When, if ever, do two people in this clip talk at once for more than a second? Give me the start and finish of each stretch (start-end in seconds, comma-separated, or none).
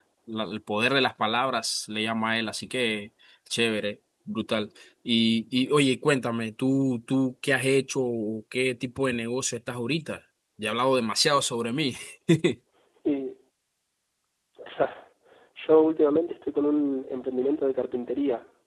none